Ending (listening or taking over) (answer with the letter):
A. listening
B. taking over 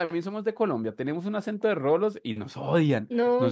B